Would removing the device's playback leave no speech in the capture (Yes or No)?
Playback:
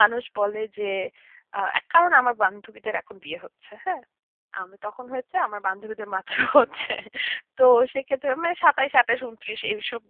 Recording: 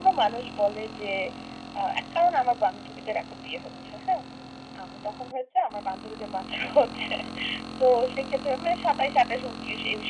Yes